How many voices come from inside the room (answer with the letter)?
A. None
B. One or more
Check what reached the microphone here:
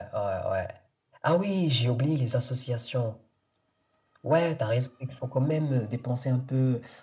A